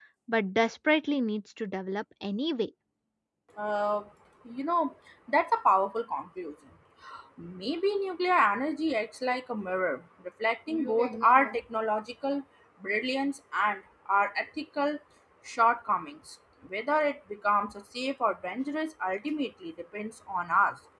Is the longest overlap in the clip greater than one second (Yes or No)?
No